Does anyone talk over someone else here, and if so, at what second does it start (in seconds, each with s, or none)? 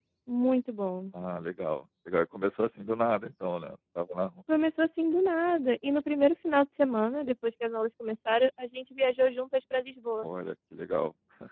none